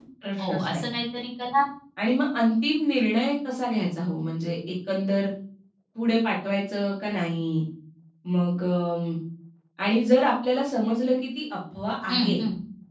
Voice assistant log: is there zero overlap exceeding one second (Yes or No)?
Yes